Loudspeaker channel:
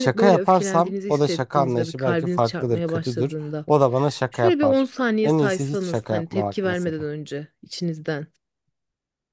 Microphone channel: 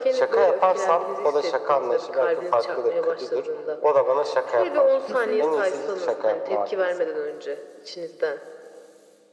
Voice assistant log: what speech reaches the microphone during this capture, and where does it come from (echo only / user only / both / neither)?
both